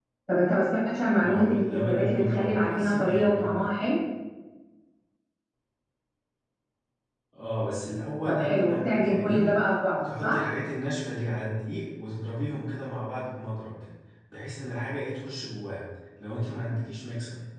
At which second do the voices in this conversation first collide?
1.2 s

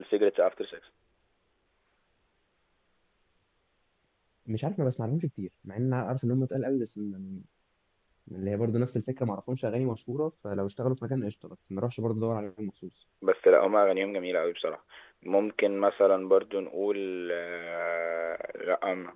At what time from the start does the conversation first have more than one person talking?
none

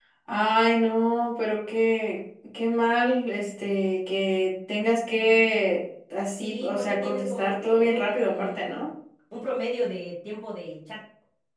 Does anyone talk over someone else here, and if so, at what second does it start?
6.4 s

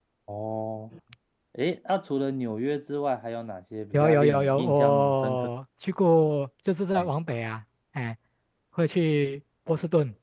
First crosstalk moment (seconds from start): 3.9 s

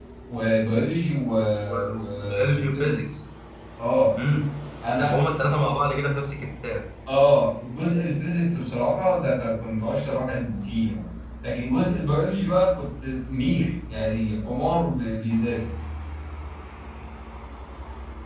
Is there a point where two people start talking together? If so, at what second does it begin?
1.7 s

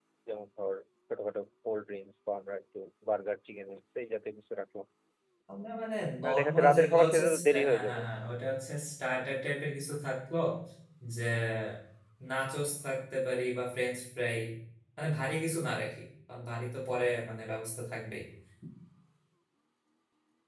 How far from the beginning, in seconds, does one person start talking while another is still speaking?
6.2 s

